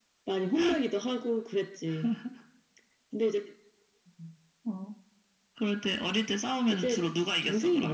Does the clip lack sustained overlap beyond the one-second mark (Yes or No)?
Yes